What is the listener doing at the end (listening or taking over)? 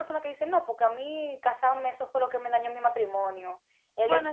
listening